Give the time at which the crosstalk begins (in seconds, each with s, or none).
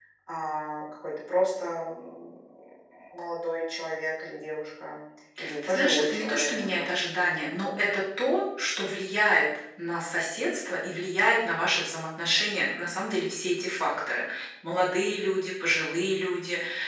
5.7 s